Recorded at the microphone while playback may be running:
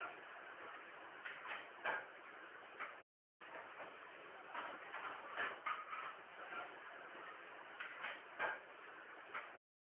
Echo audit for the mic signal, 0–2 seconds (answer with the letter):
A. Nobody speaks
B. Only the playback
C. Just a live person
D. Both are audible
A